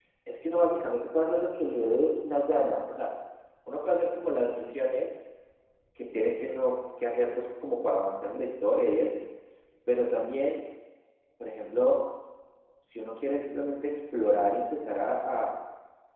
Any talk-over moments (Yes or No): No